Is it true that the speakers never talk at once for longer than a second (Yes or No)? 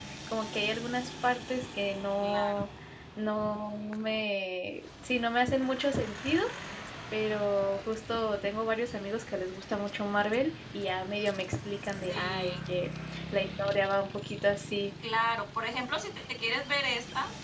Yes